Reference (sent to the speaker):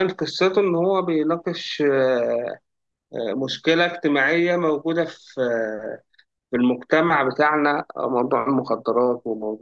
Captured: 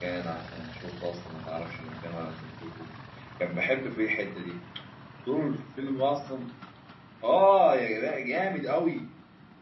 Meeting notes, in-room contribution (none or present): present